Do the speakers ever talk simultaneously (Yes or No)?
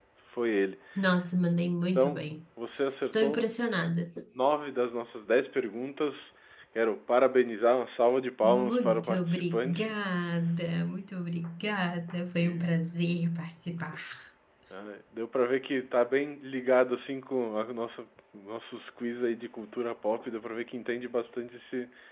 Yes